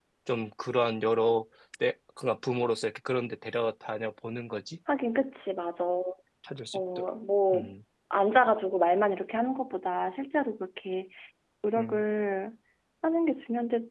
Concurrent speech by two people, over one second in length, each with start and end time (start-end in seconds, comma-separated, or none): none